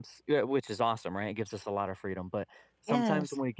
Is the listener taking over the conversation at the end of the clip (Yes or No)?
No